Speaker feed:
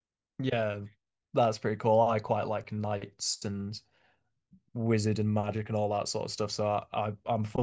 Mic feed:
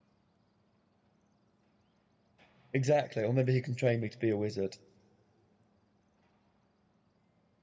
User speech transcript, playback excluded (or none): Exactly. Or maybe he can train me to be a wizard.